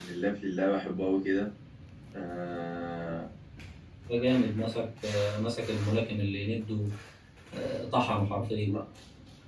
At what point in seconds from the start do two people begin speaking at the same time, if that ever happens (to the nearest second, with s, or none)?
none